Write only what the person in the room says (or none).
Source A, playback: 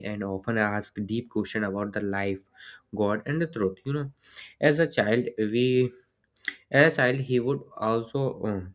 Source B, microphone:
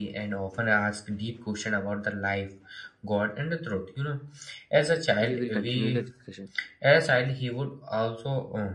we will continue the discussion.